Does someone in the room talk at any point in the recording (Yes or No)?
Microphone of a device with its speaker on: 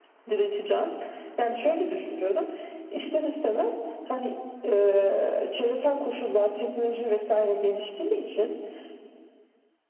No